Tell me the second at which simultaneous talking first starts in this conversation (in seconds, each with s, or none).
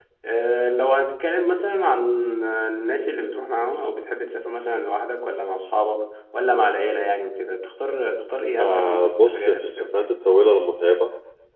8.6 s